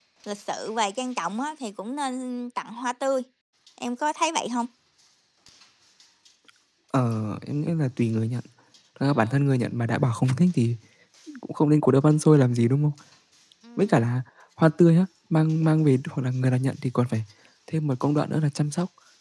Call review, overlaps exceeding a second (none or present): none